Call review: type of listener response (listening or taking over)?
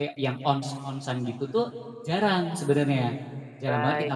taking over